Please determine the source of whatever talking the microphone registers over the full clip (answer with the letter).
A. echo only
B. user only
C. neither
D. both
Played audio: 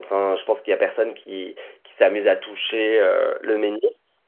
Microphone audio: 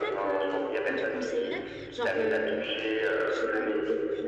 D